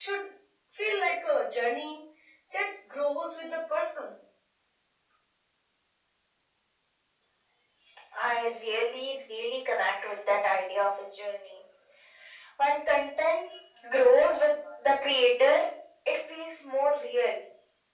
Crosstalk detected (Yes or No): No